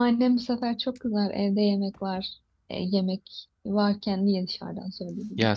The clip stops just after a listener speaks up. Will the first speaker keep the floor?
No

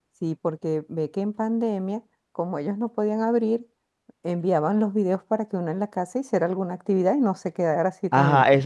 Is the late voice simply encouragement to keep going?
No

